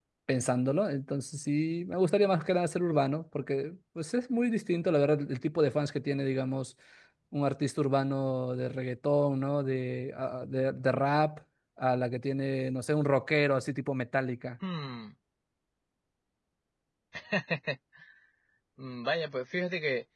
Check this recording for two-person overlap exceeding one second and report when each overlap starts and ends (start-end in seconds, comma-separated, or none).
none